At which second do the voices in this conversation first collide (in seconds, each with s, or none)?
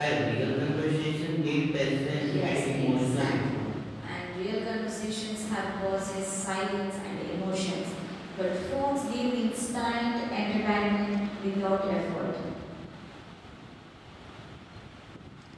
2.0 s